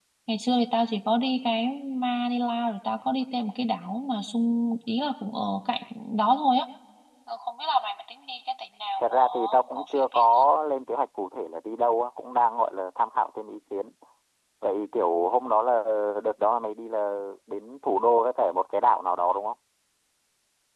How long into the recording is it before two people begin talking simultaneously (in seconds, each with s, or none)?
9.0 s